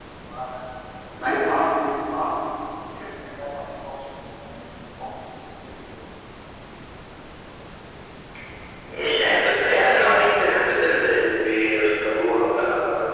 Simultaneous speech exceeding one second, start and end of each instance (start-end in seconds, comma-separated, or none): none